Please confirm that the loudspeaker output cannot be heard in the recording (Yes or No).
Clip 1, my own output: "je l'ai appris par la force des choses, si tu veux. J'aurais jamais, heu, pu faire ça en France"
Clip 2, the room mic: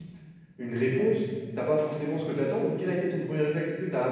Yes